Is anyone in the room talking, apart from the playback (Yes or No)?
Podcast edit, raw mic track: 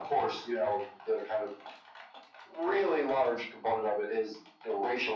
No